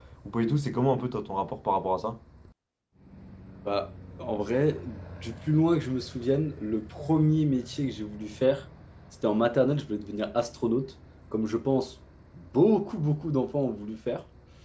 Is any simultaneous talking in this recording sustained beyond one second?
No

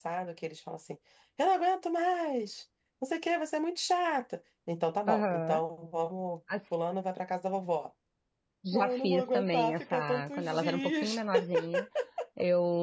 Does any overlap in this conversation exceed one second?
Yes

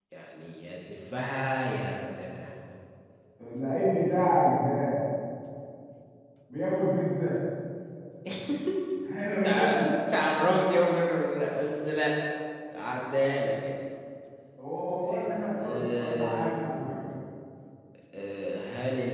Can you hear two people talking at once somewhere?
Yes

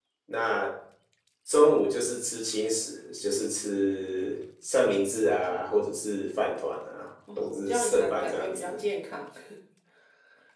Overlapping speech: Yes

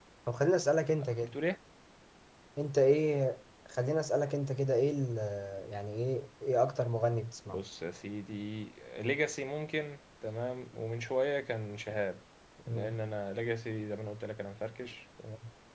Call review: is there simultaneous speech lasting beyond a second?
No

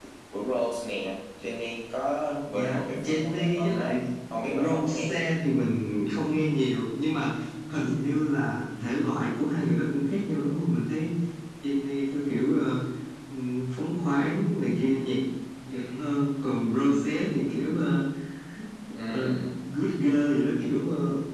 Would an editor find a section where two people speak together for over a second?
Yes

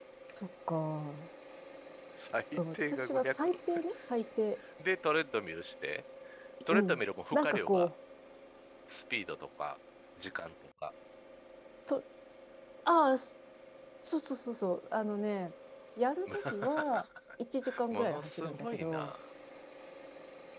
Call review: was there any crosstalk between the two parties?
Yes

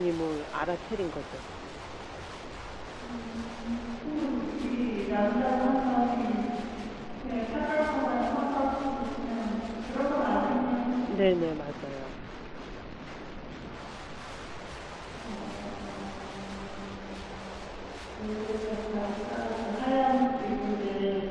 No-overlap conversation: Yes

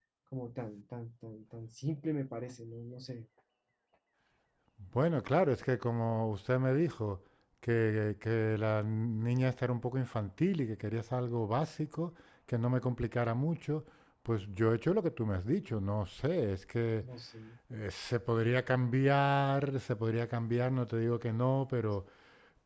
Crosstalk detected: No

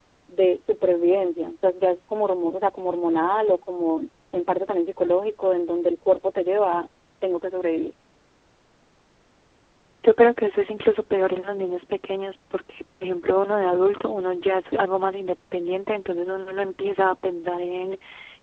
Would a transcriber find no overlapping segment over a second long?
Yes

